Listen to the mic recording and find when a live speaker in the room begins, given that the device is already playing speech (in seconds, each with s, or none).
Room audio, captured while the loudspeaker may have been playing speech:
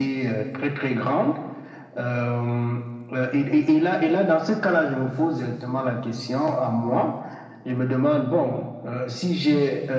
none